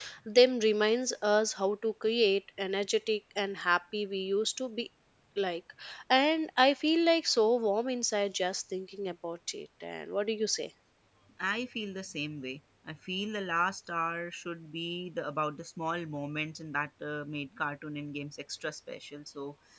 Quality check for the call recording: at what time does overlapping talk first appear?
none

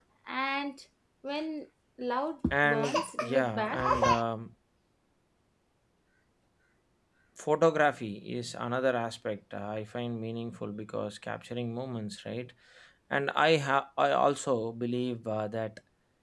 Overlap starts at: 2.5 s

